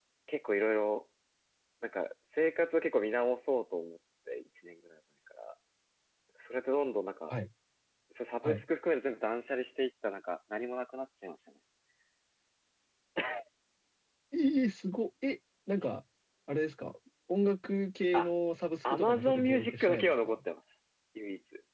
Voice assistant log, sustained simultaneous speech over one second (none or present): present